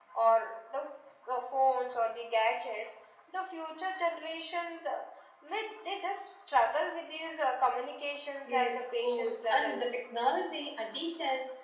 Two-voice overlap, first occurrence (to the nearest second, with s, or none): 8 s